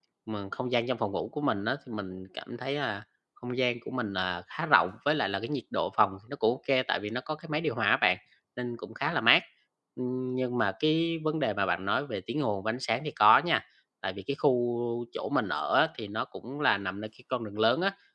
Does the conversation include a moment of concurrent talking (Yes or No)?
No